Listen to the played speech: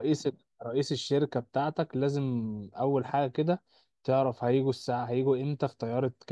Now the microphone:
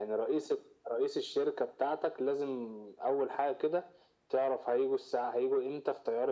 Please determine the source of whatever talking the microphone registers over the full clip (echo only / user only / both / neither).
echo only